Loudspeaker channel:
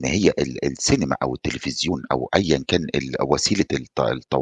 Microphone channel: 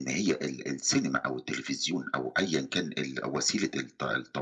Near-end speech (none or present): none